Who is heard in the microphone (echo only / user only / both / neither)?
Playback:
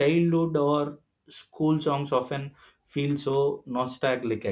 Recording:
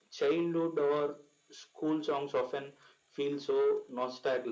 echo only